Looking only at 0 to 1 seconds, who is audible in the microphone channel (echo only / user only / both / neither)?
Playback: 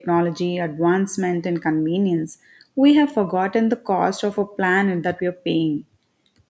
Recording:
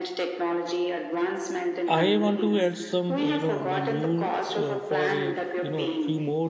echo only